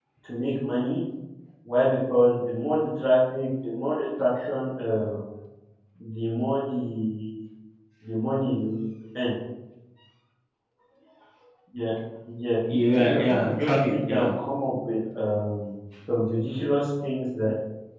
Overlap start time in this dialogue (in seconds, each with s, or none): 13.0 s